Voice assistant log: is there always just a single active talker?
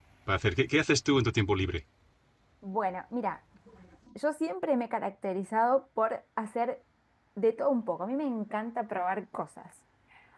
Yes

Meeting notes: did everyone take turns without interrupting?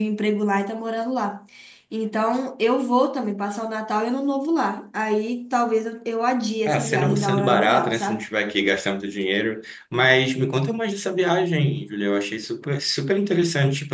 No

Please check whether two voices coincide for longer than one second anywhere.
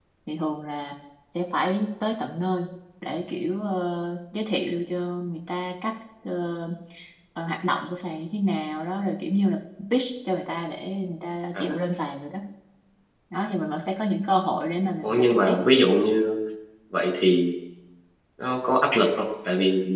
No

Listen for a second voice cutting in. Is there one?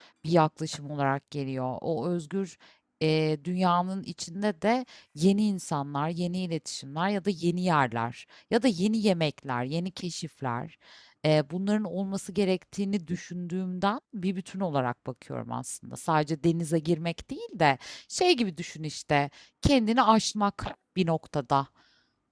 No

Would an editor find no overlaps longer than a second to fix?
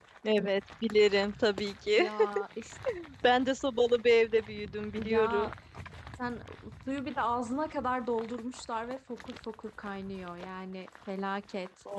Yes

